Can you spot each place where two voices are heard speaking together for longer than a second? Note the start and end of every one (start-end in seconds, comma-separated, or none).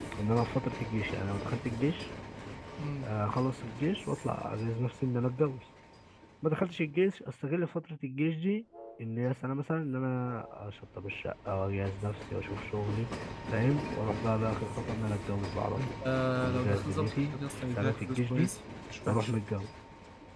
16.5-18.5